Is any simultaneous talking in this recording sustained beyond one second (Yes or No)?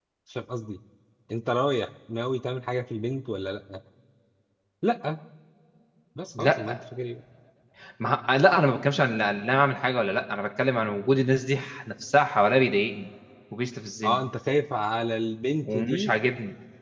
No